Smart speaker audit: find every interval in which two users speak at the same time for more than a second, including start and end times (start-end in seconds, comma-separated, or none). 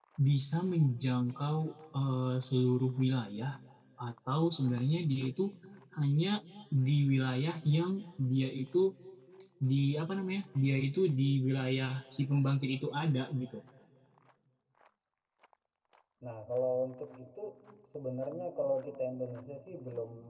none